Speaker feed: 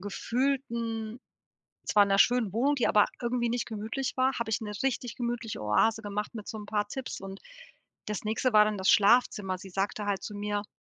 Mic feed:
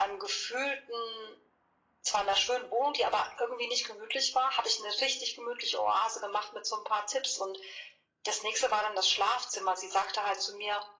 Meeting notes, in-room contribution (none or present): none